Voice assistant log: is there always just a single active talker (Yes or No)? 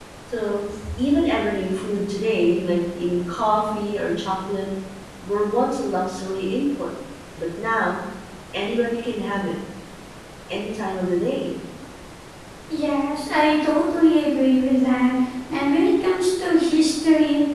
Yes